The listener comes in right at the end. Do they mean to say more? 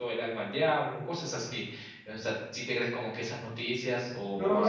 Yes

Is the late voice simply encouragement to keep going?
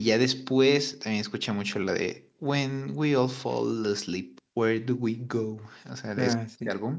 Yes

